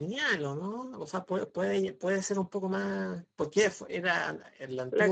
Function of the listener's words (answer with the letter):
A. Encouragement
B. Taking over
B